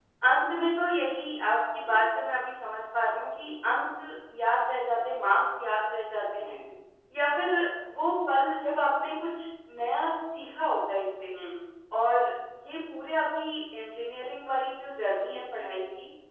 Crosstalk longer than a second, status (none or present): none